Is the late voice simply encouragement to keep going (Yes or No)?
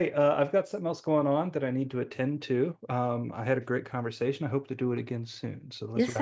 No